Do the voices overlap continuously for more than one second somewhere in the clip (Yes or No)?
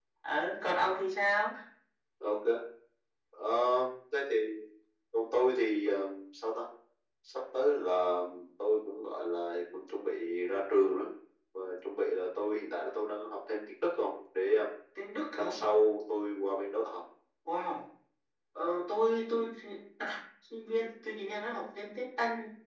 No